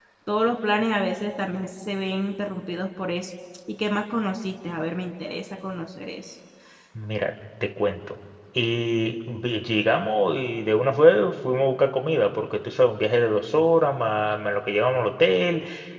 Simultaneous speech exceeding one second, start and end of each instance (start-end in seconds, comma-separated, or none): none